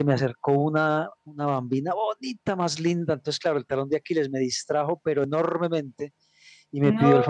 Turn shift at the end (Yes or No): No